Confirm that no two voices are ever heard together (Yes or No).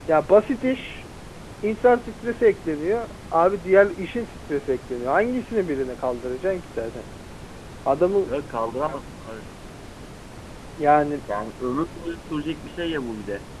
Yes